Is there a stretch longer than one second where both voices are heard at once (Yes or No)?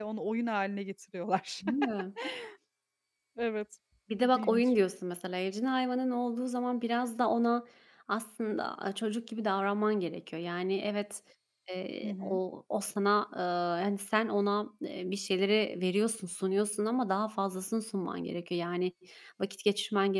No